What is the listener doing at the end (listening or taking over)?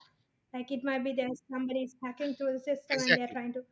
taking over